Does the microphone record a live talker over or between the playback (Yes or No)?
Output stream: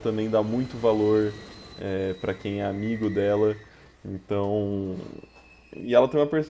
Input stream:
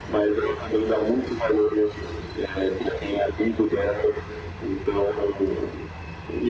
No